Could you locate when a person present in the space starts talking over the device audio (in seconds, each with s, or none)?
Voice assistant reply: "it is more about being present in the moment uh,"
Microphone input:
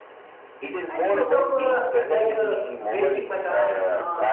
0.9 s